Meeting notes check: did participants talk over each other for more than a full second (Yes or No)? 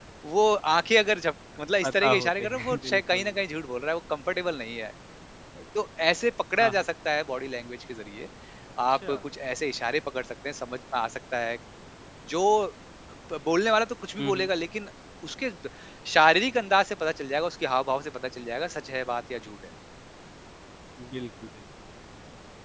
Yes